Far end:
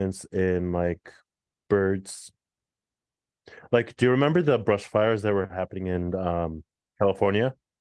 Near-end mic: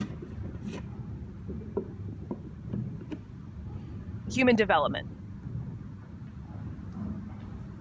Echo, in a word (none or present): none